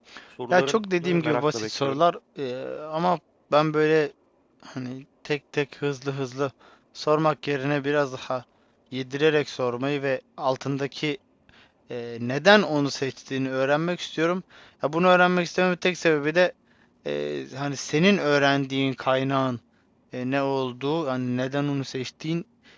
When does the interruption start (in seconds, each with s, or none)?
0.5 s